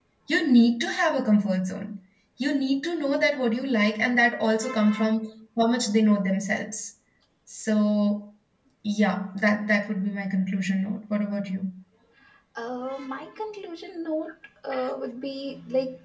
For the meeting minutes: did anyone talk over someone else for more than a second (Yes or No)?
No